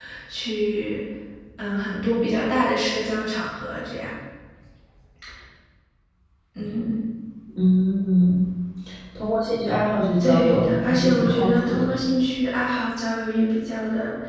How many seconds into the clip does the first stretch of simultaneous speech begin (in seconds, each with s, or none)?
10.2 s